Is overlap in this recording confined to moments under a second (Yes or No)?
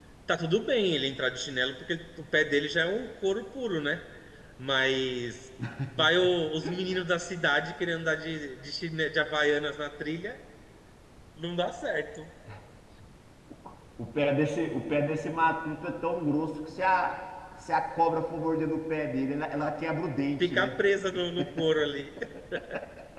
Yes